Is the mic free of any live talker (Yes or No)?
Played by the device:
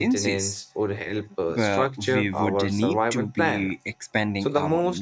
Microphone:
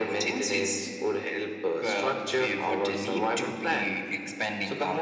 Yes